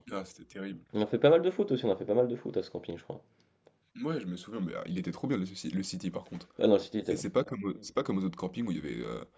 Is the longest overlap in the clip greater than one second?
No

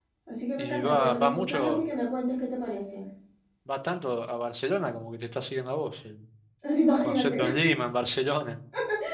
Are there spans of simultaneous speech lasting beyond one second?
Yes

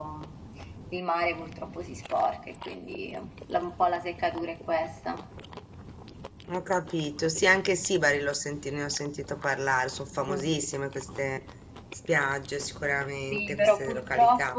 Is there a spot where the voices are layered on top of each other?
Yes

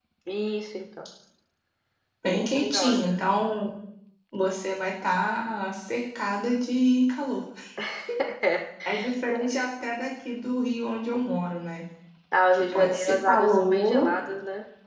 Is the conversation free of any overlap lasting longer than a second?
No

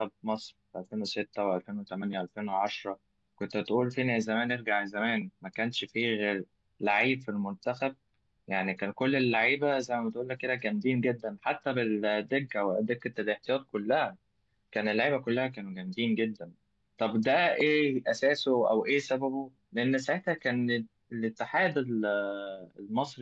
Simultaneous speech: No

